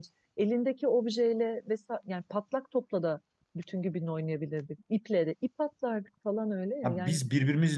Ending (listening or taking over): taking over